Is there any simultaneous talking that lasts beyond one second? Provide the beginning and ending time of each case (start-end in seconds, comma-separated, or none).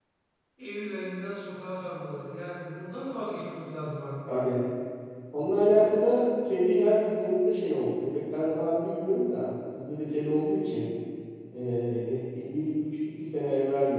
none